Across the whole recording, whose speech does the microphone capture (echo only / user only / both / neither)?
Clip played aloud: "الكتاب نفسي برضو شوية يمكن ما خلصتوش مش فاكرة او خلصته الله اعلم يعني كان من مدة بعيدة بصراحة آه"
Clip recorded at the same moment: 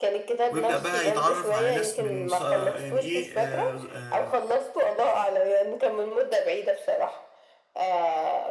both